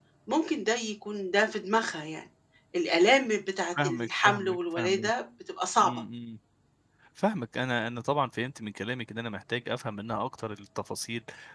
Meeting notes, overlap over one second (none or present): present